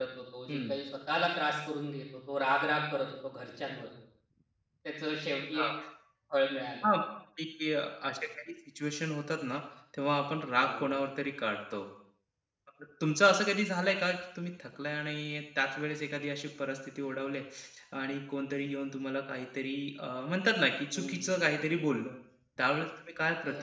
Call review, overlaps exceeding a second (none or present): none